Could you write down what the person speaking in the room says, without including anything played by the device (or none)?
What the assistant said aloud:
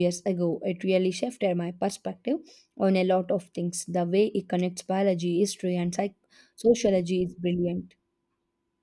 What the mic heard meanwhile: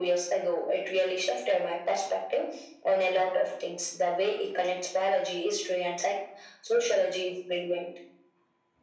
none